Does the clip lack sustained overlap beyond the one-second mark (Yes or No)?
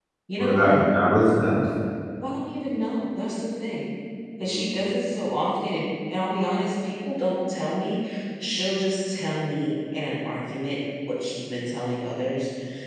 Yes